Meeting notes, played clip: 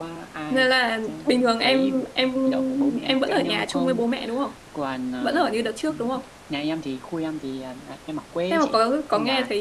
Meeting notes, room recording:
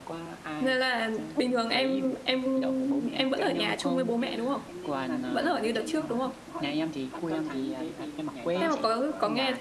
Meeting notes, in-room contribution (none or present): present